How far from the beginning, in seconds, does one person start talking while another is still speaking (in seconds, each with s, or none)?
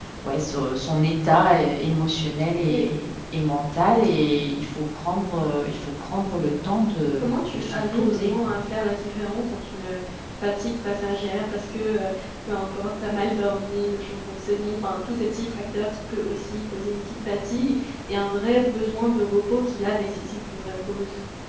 7.2 s